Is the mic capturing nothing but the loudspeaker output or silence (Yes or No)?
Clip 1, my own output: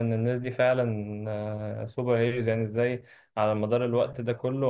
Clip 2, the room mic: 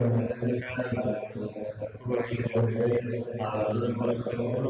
Yes